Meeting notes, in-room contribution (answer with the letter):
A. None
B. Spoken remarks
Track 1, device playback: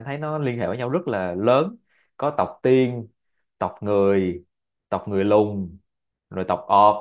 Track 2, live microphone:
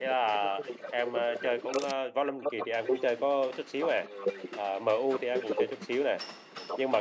B